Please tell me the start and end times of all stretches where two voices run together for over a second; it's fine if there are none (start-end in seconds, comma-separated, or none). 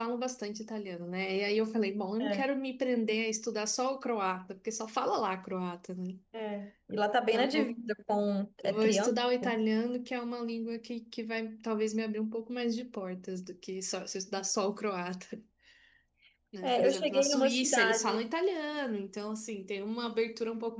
16.6-18.2